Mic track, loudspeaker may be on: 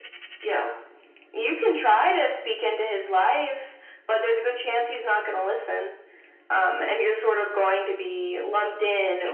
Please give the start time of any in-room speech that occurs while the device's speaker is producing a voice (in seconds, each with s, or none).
none